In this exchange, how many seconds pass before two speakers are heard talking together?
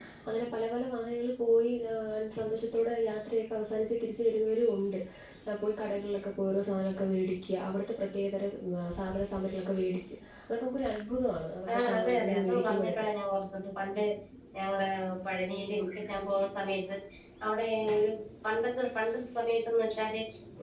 12 s

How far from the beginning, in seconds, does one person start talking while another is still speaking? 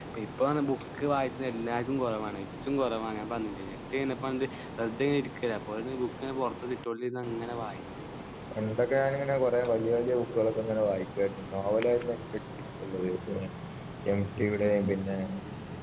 none

